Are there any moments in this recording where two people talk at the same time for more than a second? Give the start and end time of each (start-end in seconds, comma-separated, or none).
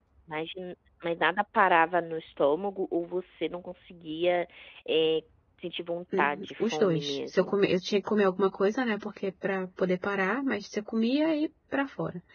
6.2-7.6